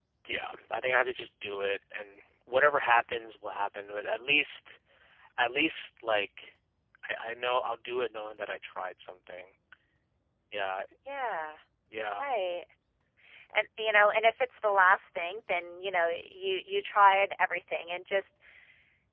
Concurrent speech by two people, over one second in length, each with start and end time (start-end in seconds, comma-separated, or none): none